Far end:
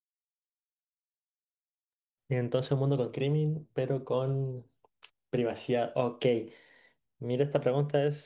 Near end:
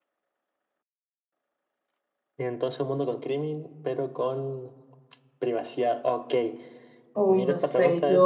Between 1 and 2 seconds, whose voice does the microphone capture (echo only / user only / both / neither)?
neither